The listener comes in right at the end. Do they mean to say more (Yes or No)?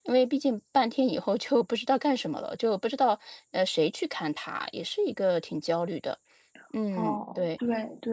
Yes